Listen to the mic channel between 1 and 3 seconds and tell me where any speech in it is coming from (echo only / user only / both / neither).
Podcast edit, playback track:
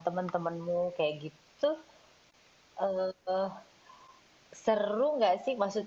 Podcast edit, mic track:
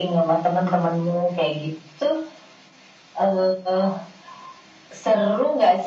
echo only